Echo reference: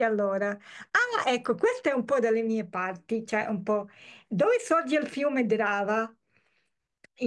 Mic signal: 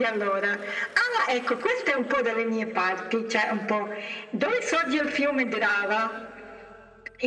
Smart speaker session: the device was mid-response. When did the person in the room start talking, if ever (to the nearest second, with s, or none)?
none